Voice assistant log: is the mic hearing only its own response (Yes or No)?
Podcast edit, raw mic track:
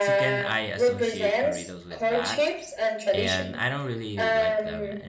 No